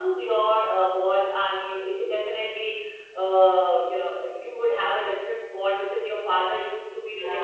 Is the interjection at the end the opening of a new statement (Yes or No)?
Yes